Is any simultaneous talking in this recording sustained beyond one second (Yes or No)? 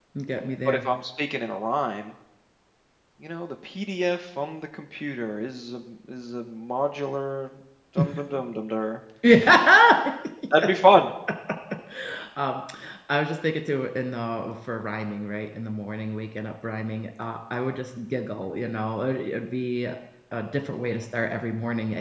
No